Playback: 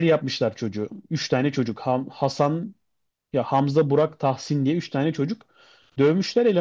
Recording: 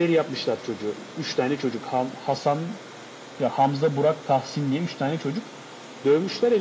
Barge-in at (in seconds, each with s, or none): none